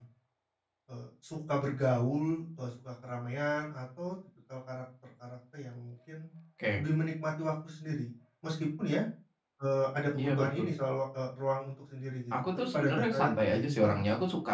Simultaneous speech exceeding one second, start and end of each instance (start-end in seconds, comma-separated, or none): 12.6-14.0